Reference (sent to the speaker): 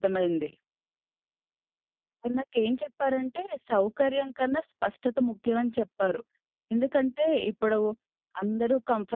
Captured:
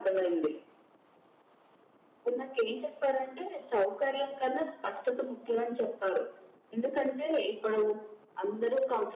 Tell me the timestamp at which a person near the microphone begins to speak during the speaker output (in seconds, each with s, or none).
none